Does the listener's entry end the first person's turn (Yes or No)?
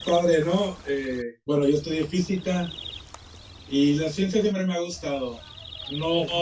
No